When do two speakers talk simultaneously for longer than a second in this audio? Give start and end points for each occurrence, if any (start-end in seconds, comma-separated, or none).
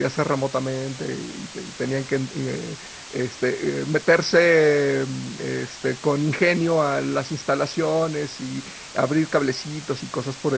none